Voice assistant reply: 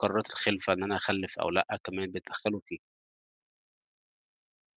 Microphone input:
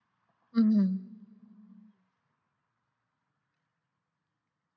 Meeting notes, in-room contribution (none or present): present